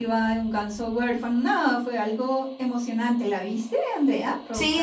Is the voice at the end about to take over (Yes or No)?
Yes